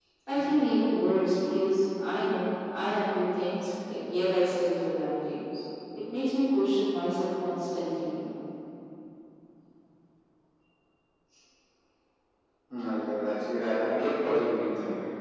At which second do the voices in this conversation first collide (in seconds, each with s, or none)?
none